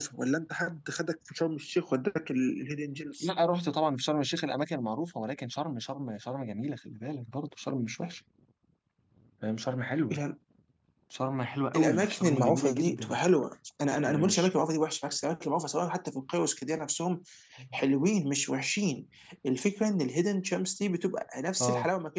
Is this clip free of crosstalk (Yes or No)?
No